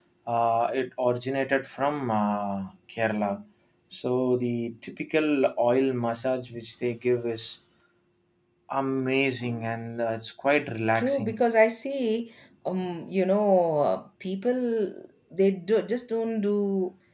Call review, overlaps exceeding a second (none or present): none